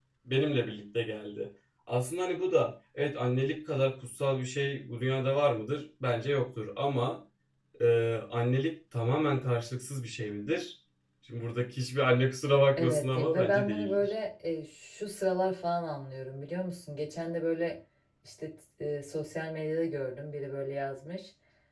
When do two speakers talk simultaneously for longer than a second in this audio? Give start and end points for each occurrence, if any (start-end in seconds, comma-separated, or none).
12.8-14.1